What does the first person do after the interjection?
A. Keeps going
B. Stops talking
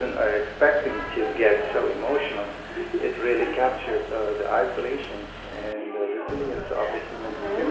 B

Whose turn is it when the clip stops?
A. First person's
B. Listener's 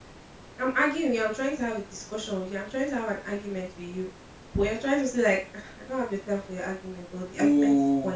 B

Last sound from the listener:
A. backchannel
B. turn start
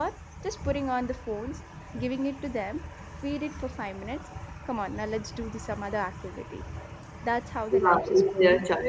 B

